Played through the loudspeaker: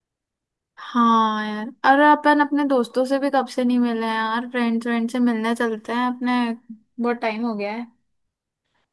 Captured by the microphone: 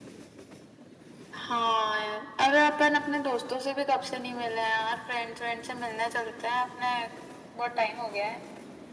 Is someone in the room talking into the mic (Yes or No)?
No